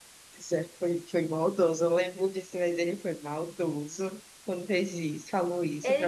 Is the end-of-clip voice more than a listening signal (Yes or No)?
Yes